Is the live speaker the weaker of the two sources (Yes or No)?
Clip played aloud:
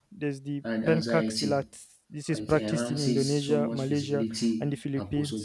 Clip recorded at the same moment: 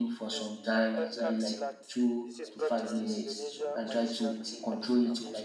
No